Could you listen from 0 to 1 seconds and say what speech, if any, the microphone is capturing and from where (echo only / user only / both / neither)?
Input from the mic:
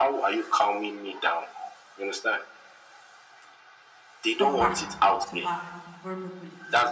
echo only